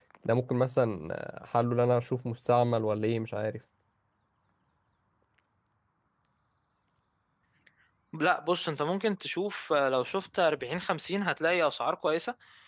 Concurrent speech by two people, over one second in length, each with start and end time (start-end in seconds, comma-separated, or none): none